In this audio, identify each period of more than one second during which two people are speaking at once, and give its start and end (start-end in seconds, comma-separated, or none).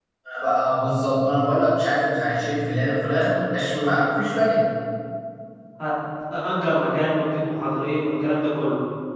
none